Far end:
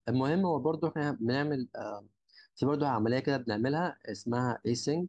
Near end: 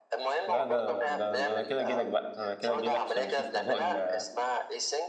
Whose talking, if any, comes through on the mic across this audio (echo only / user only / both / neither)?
both